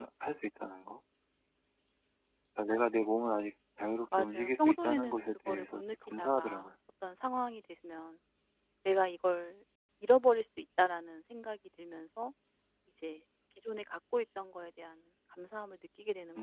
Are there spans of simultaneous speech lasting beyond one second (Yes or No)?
Yes